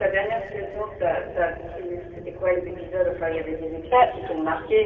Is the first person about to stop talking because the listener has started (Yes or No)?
No